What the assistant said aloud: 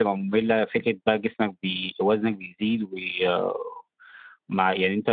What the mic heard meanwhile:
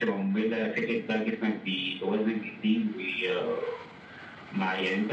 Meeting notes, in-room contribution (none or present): none